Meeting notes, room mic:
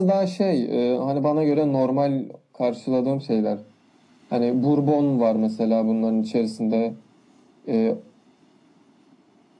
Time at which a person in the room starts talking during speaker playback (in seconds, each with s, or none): none